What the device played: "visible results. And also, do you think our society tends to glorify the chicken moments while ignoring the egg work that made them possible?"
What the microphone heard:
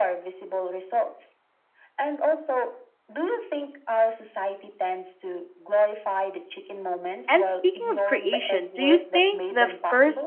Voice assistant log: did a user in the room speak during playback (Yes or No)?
Yes